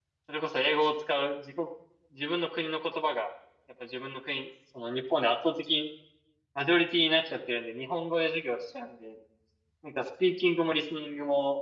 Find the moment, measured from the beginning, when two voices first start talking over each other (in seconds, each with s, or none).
none